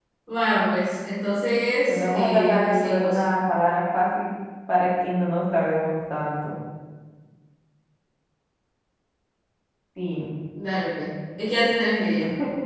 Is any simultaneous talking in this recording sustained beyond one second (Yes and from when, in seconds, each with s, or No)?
Yes, from 1.9 s